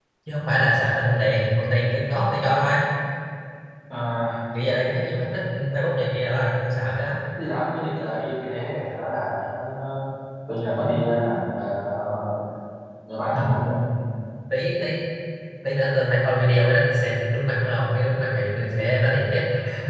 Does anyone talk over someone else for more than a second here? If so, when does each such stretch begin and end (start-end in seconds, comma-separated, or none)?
none